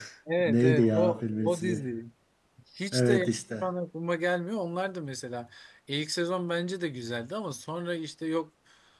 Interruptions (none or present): present